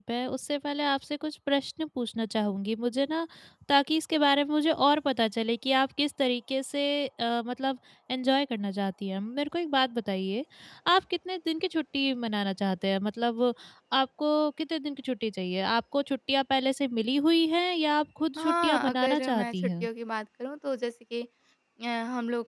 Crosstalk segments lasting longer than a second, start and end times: 18.4-19.9

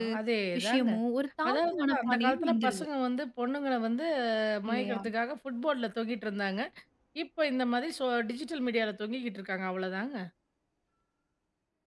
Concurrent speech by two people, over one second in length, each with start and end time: 1.5-2.8

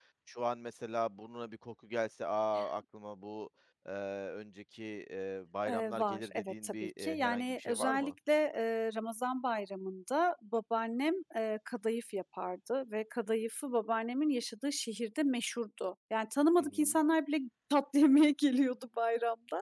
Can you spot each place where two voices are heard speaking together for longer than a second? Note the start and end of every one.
5.7-8.1

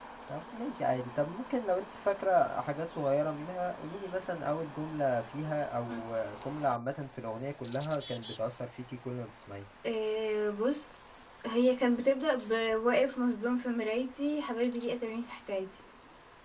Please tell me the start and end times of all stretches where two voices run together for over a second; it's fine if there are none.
none

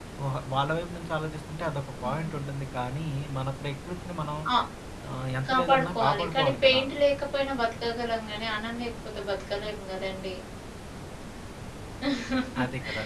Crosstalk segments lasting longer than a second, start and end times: 5.5-6.8

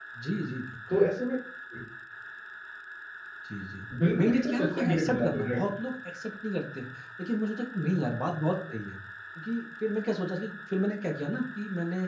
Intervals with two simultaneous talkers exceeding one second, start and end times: 4.1-5.7

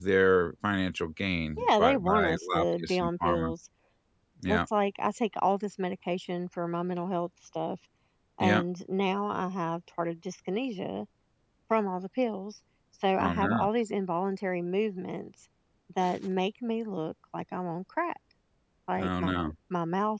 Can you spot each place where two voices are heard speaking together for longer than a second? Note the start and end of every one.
1.7-3.5

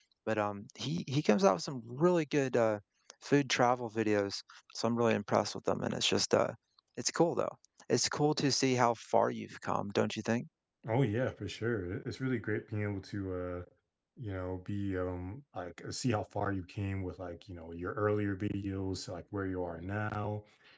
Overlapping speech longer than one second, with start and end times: none

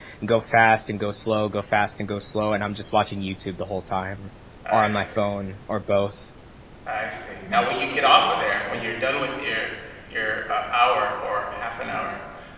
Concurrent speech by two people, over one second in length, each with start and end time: none

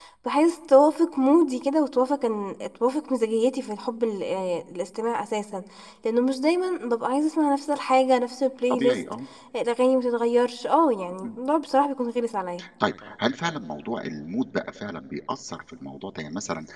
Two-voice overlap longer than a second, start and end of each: none

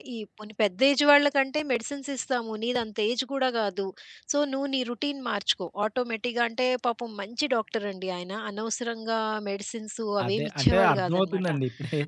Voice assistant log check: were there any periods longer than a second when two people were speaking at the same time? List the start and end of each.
10.2-11.5

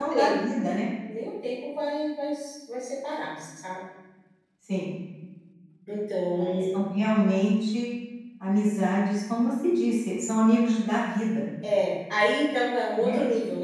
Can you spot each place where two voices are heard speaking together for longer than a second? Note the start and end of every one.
none

